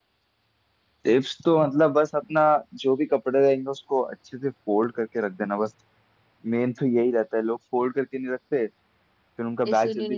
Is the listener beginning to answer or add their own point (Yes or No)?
No